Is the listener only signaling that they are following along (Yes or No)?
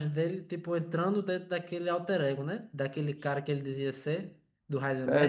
No